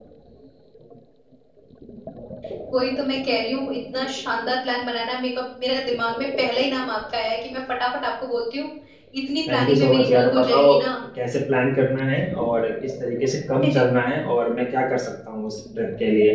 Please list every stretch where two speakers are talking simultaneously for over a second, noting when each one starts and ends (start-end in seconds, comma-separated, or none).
9.5-10.7